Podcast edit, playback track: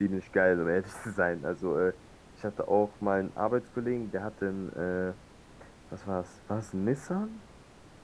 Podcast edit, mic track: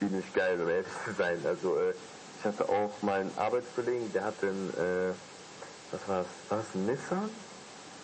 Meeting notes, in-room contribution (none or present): none